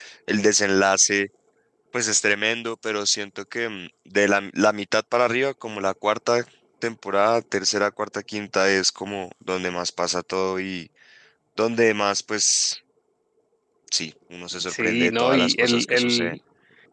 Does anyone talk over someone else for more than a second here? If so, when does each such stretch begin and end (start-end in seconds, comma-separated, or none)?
14.6-16.4